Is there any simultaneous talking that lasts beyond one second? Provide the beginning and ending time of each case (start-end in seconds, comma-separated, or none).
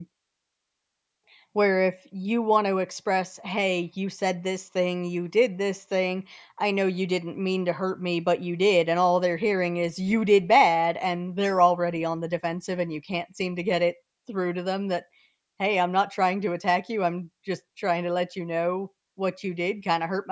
none